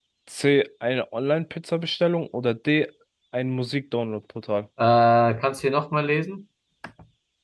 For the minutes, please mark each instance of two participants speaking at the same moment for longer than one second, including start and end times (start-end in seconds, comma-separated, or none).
none